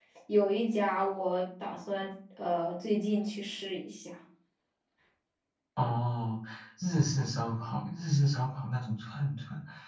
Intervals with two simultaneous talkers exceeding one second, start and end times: none

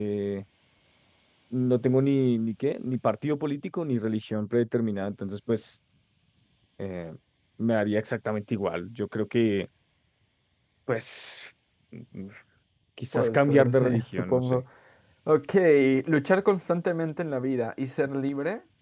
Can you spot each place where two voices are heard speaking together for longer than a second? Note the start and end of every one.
13.1-14.6

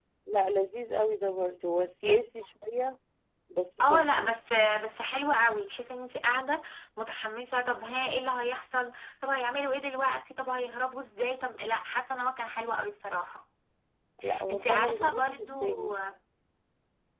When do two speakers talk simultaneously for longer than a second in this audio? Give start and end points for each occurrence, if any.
14.5-15.9

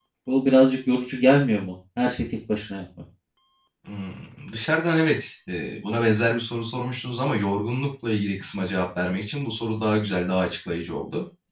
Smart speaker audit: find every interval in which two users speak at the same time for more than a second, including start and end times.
none

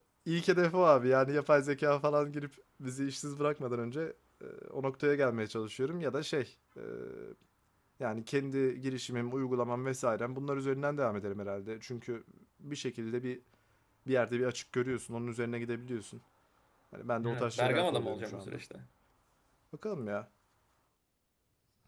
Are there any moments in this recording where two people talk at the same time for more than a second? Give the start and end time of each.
17.3-18.6

